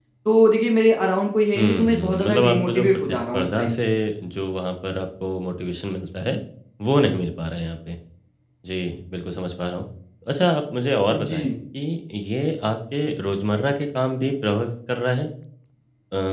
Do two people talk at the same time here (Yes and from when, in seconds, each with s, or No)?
Yes, from 1.6 s